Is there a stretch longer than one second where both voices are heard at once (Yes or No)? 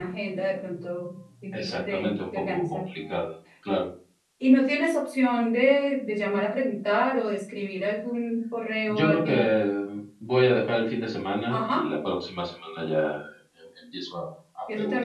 Yes